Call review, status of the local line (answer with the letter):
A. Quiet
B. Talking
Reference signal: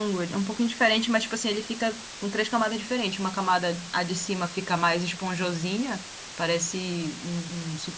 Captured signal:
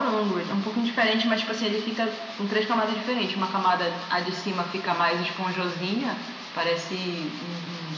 A